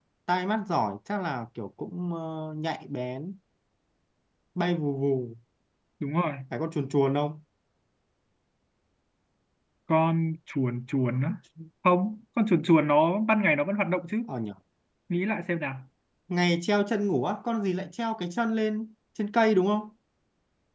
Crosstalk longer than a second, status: none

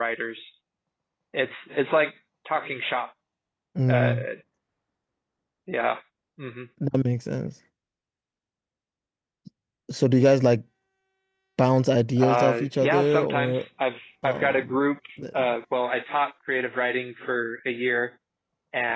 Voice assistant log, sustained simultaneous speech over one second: present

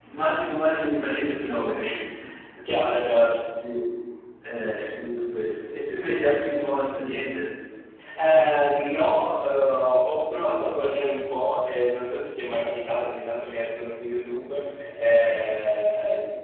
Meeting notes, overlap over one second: none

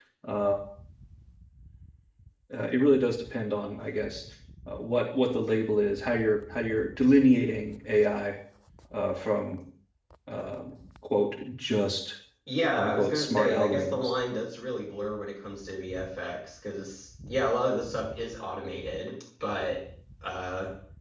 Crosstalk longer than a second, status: present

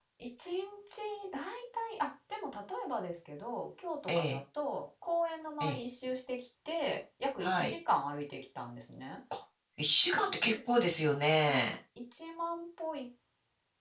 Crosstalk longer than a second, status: none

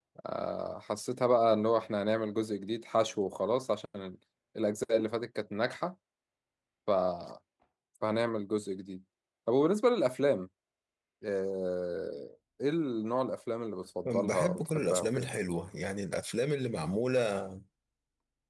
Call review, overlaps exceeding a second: present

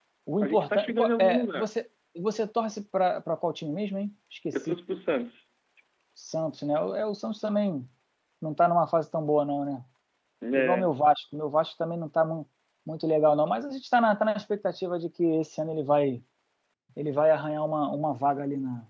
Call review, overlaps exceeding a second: present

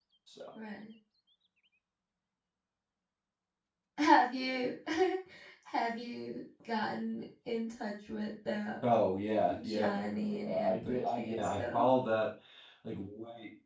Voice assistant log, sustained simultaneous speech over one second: present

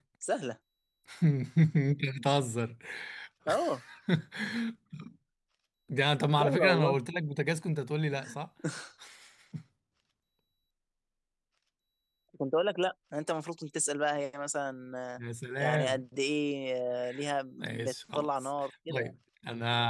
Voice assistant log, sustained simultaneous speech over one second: present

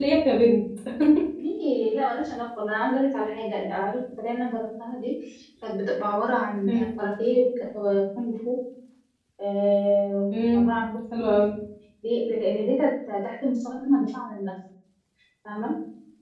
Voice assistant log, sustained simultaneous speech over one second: none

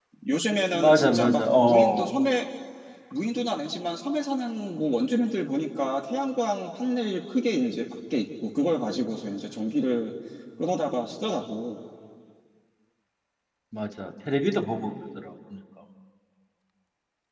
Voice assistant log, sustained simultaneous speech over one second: present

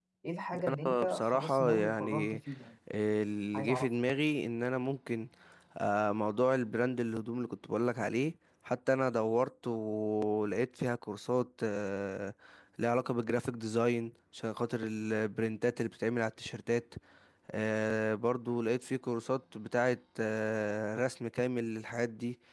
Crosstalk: present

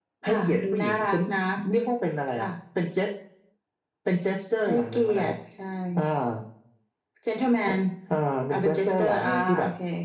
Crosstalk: present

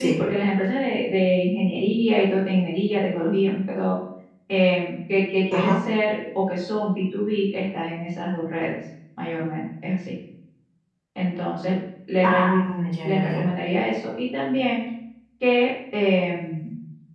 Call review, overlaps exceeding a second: none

